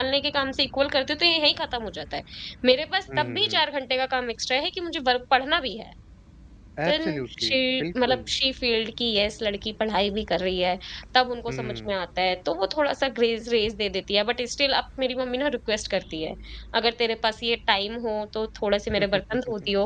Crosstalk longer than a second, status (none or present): present